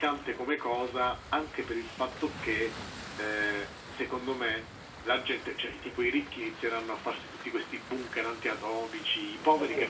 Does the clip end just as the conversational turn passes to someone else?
Yes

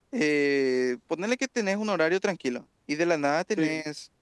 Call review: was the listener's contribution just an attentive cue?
Yes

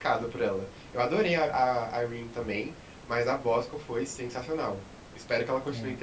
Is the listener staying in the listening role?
Yes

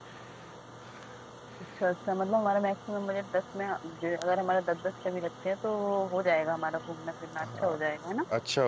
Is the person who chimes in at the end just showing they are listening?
No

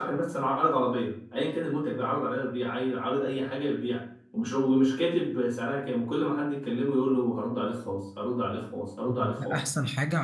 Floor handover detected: Yes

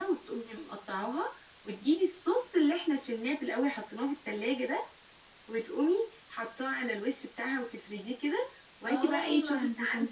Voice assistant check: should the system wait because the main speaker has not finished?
No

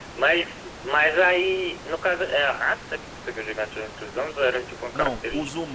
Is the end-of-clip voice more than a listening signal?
Yes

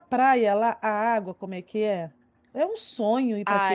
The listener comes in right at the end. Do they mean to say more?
Yes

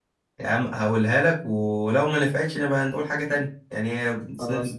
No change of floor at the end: Yes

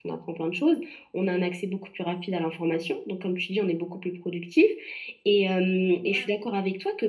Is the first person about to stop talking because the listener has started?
No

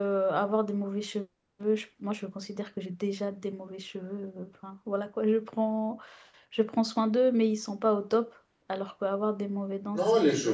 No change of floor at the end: No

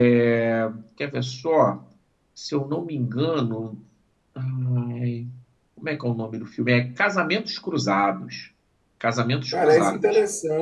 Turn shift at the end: Yes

